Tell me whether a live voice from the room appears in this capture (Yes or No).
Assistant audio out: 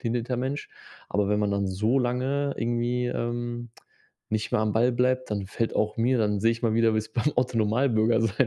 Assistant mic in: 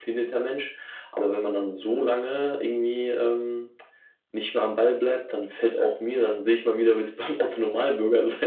No